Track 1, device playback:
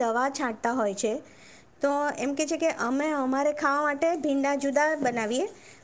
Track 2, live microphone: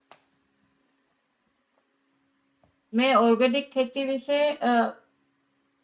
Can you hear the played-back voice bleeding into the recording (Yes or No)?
No